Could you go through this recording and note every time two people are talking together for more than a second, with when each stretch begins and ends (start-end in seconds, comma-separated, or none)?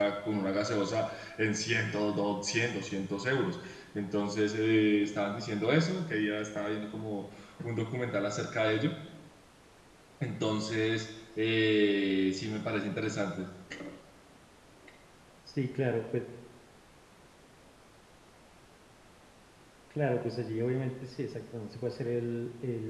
none